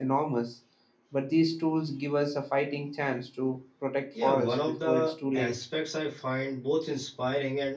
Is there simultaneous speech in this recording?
Yes, from 4.1 s

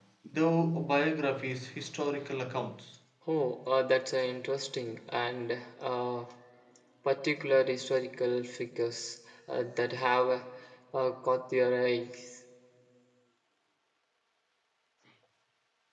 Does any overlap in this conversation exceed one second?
No

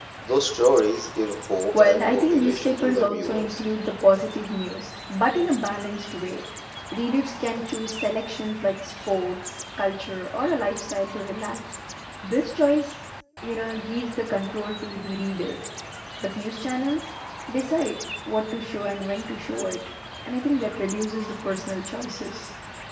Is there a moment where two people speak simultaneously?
Yes, from 1.7 s

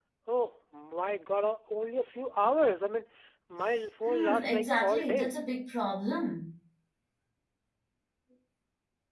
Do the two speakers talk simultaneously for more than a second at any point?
Yes, from 4.1 s

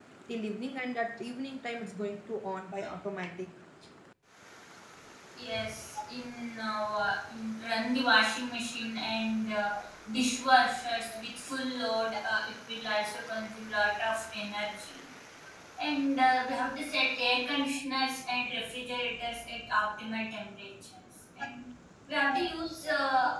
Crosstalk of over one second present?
No

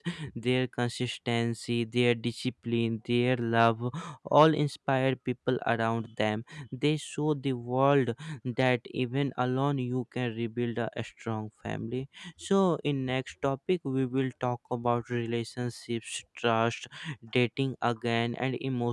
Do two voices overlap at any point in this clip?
No

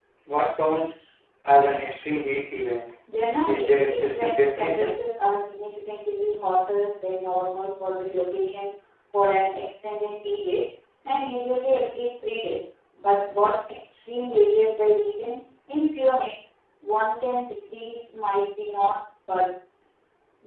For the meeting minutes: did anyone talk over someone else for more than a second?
Yes, from 3.5 s

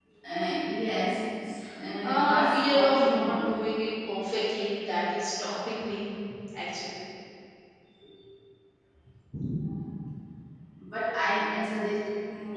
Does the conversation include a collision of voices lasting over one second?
Yes, from 2.0 s

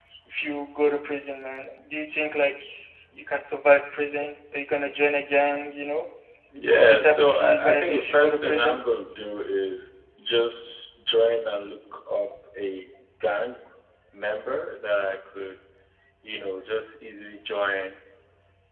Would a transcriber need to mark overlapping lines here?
Yes, from 6.7 s

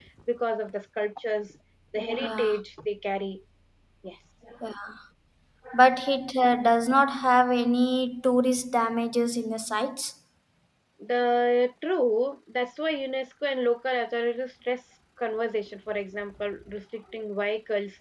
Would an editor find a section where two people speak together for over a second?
No

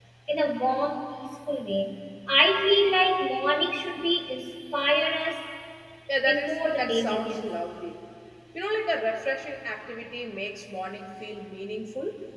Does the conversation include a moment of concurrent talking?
Yes, from 6.2 s

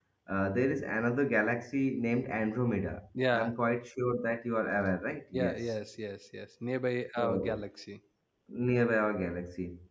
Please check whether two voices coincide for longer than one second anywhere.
No

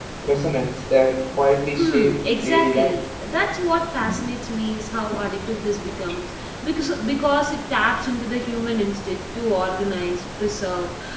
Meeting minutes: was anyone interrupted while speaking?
Yes, from 1.8 s

